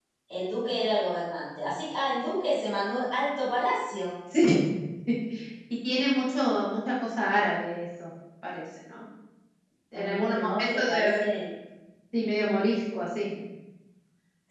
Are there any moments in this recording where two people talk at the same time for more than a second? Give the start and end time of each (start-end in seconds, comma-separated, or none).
9.9-11.2